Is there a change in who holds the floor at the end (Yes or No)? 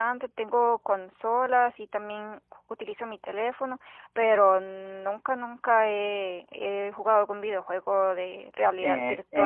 Yes